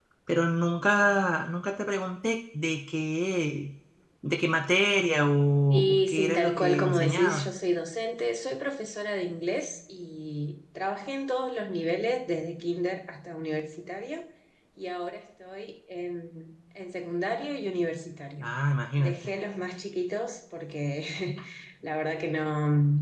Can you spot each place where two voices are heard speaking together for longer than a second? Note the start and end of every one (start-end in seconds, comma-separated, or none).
5.7-7.5